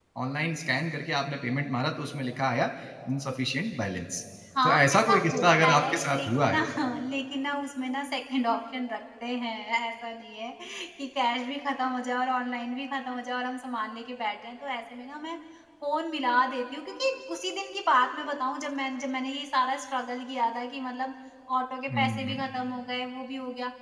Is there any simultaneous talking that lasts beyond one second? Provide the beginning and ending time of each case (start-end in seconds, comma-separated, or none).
4.6-6.6